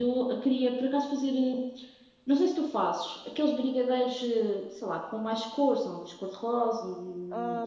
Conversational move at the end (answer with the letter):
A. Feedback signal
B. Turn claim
B